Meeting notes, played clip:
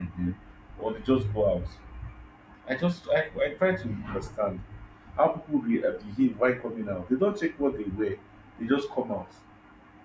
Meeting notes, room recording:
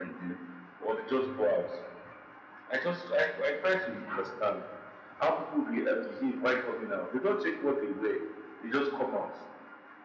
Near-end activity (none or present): none